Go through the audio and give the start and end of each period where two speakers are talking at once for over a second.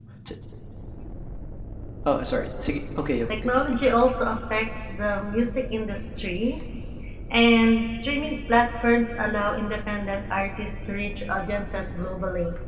none

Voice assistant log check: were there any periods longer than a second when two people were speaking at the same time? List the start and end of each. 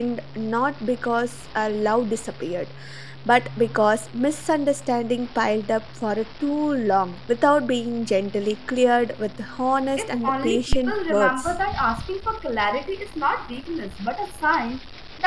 10.0-11.5

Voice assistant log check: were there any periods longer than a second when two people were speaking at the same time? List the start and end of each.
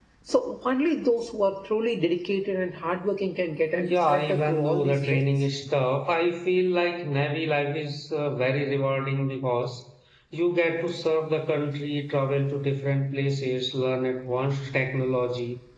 3.8-5.5

